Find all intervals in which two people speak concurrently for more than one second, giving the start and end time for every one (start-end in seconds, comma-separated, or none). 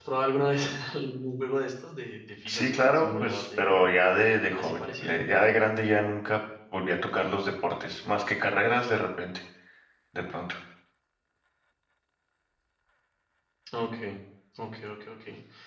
2.5-3.7